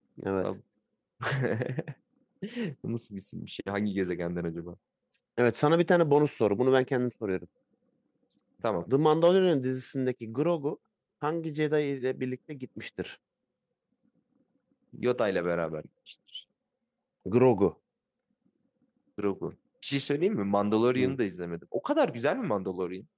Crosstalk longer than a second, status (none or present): none